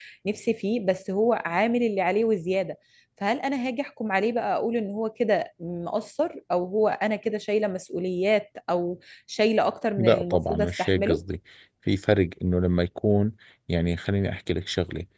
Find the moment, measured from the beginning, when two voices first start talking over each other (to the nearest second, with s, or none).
10 s